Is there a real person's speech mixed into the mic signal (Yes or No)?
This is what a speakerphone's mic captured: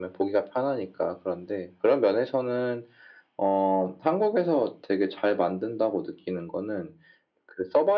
No